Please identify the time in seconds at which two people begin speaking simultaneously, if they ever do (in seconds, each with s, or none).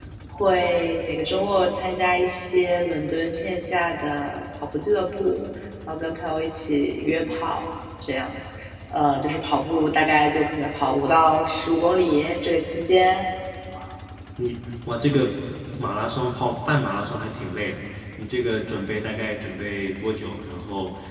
none